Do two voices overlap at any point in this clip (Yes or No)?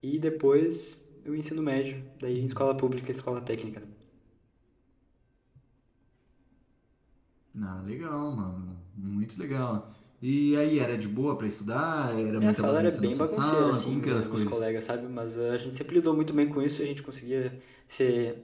Yes